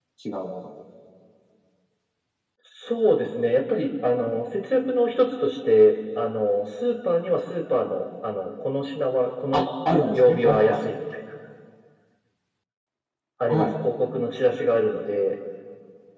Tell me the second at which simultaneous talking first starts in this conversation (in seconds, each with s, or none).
9.5 s